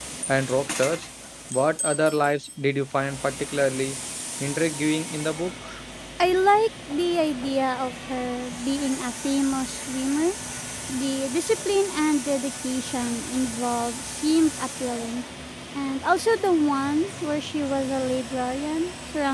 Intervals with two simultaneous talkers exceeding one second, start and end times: none

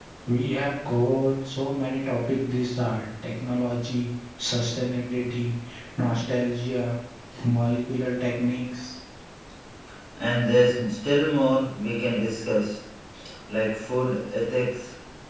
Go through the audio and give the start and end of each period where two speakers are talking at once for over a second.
none

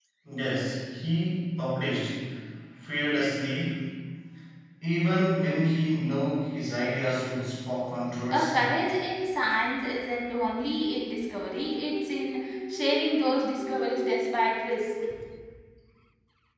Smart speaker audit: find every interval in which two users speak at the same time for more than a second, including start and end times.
none

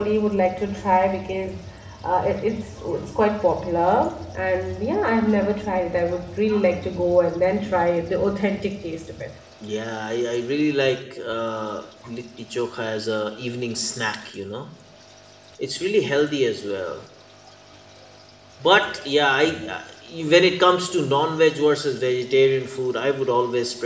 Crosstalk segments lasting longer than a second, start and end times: none

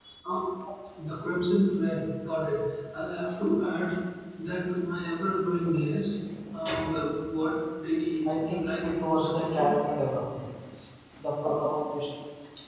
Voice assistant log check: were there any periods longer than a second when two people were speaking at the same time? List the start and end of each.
8.5-9.7

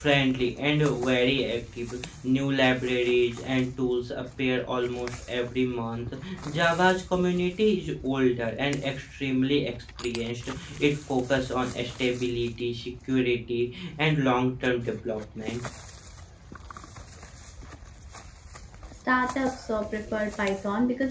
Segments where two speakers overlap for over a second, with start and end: none

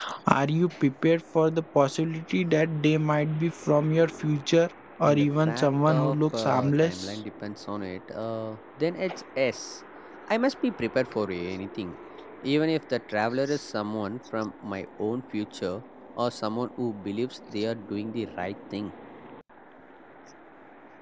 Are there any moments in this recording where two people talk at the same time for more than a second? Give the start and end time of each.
5.0-7.2

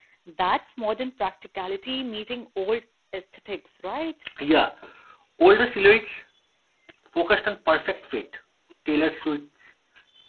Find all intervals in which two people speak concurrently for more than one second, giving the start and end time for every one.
none

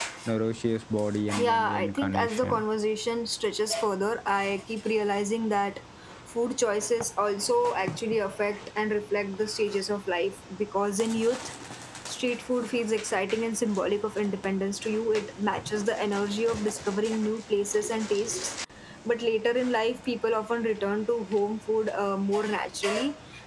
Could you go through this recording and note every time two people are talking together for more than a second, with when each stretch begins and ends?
1.4-2.6

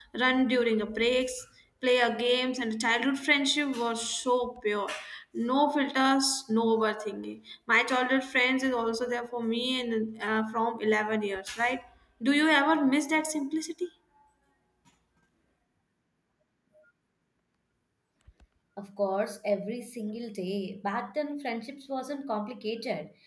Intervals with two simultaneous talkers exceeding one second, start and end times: none

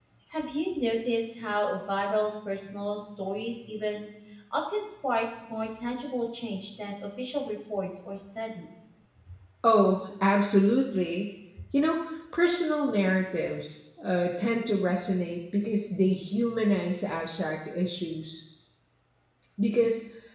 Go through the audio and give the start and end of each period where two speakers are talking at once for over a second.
none

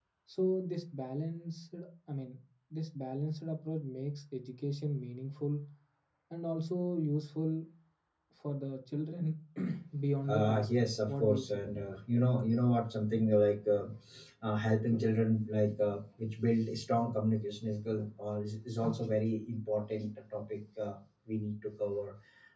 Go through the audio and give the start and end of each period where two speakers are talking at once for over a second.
10.3-11.6

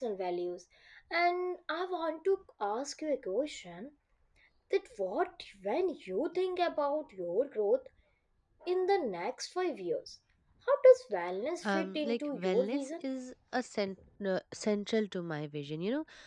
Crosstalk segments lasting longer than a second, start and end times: 11.7-13.0

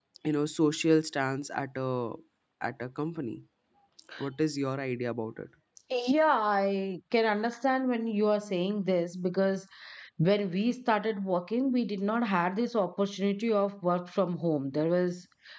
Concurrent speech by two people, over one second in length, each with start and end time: none

